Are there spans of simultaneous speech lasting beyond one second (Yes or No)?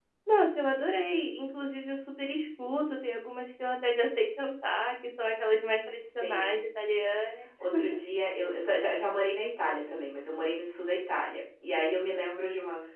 No